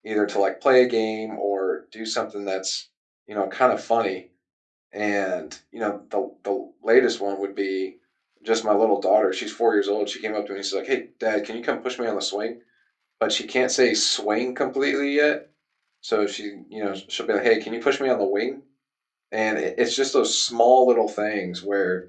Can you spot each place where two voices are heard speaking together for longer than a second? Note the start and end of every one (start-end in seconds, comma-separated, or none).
none